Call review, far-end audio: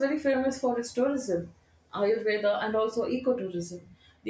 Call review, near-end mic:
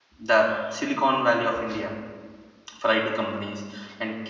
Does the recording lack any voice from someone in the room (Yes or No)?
No